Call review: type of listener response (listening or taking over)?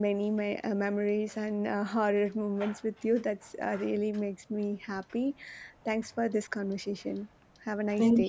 taking over